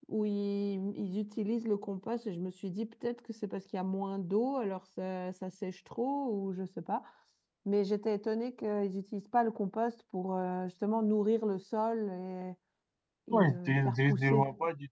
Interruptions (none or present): present